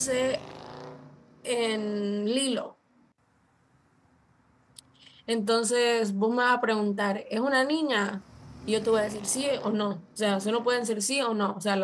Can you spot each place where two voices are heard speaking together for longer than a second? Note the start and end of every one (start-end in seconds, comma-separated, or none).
none